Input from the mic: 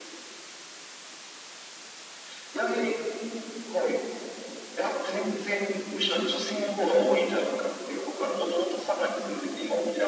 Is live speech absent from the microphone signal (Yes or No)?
Yes